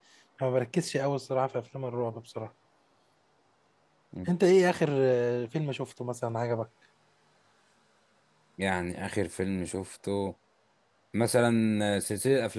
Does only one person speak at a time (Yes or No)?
Yes